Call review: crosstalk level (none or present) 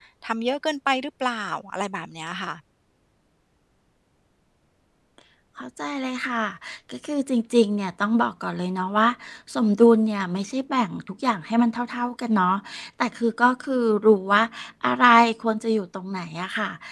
none